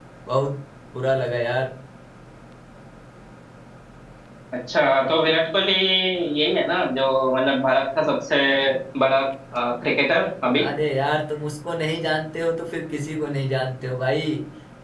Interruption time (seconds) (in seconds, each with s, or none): none